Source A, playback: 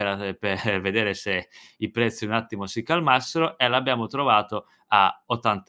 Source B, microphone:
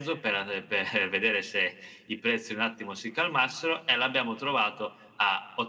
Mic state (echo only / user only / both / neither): echo only